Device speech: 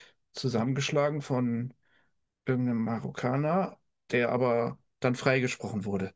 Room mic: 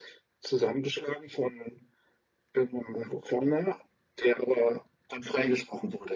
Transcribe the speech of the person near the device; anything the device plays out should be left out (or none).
none